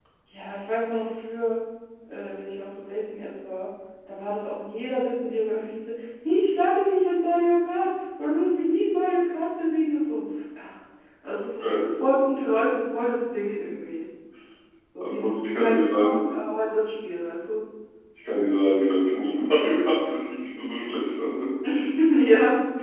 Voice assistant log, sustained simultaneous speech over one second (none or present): present